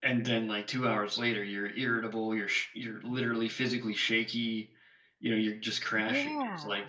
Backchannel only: Yes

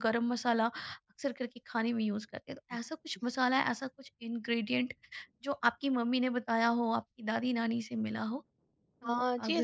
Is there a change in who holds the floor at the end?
Yes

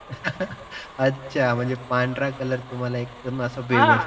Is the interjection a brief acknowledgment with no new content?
No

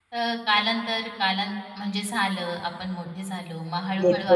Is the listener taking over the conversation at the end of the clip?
Yes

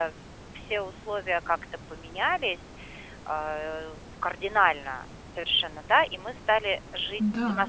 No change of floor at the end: Yes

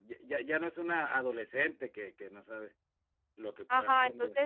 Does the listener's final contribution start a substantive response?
Yes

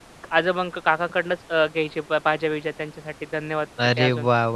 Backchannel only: No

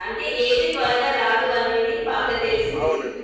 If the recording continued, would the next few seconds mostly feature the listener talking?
Yes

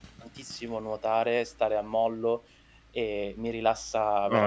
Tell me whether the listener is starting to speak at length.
Yes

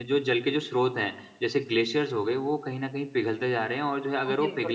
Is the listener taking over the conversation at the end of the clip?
No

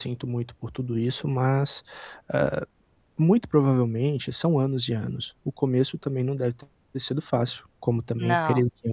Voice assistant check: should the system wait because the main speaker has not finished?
Yes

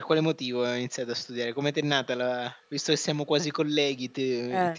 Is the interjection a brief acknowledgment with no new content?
Yes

